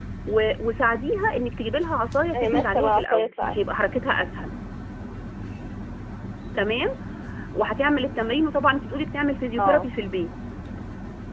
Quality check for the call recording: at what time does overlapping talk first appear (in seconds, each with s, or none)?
2.3 s